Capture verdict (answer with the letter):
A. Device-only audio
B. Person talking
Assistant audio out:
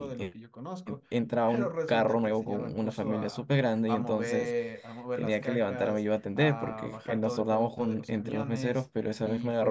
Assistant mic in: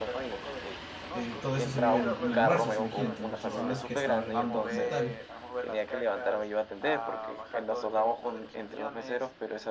B